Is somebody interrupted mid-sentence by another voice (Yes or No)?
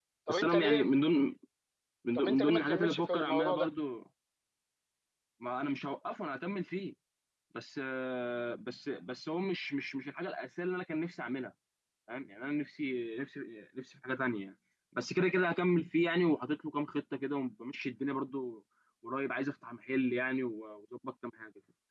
Yes